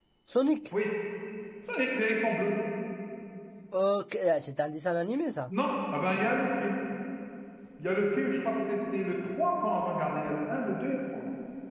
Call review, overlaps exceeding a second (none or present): none